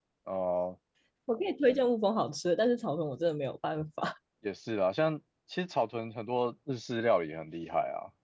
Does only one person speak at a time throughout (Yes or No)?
Yes